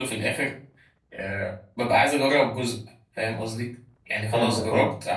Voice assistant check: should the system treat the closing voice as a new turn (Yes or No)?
No